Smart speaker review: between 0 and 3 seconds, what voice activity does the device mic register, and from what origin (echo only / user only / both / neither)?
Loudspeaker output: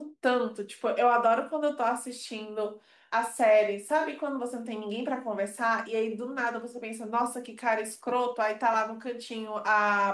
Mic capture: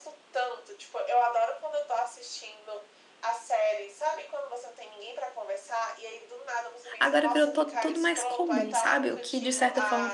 echo only